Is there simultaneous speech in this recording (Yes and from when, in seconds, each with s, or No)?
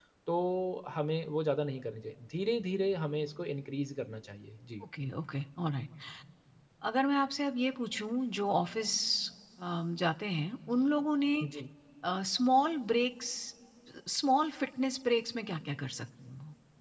No